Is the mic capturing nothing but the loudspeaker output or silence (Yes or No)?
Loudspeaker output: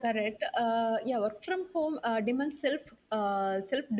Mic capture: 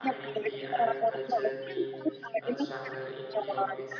No